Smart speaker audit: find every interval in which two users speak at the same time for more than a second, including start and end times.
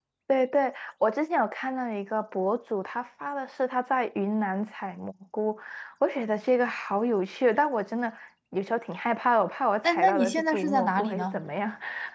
9.8-11.4

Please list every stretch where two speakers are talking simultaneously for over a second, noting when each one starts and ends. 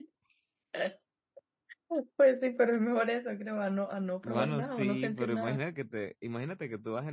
4.2-5.6

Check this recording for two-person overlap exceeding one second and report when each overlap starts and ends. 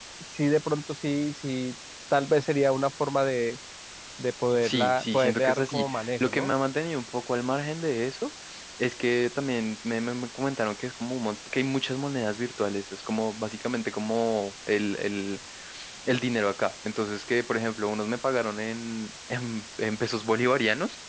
4.6-6.5

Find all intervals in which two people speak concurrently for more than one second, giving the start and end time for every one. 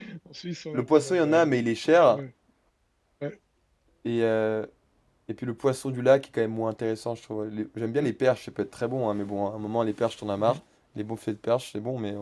0.7-2.2

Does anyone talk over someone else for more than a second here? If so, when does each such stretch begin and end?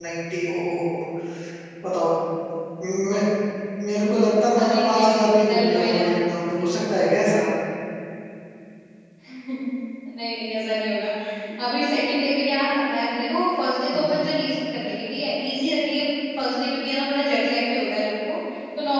4.6-6.1

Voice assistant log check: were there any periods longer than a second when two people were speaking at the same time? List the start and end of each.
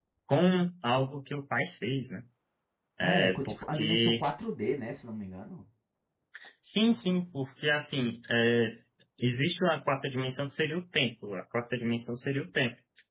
3.0-4.2

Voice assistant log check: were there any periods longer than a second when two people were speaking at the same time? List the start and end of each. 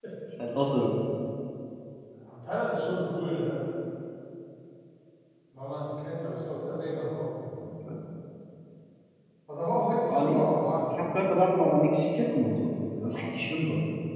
none

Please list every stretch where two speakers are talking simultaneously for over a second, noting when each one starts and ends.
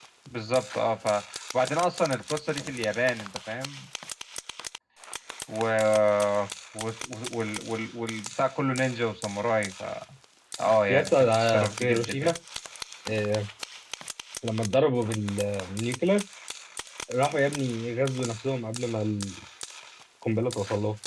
10.9-12.3

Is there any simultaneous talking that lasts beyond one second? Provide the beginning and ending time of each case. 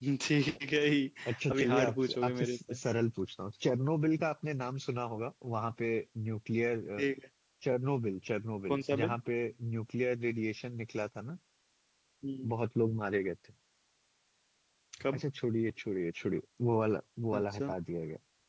1.5-2.7

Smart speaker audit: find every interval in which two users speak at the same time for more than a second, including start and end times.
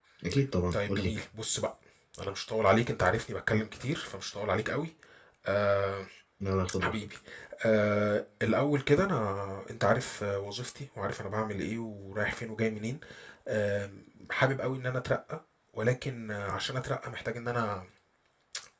none

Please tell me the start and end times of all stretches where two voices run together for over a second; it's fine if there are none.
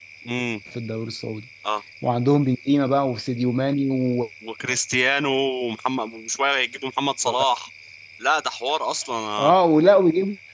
none

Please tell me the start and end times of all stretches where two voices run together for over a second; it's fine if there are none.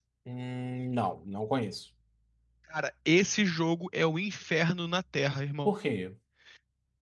none

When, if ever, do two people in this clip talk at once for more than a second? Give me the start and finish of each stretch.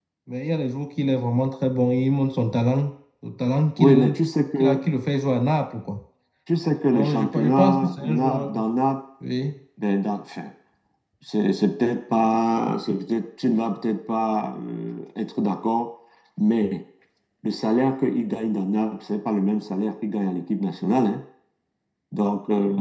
6.9-8.6

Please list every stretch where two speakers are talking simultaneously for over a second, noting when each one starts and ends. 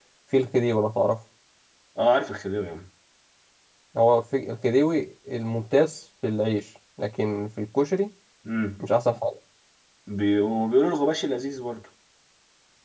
none

